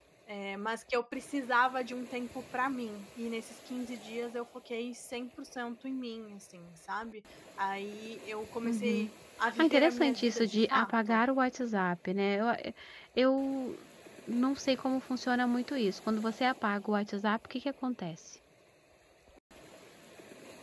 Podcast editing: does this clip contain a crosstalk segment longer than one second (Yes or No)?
Yes